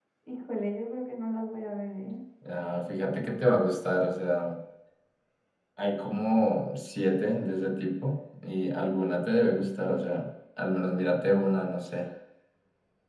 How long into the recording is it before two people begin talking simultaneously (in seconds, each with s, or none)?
none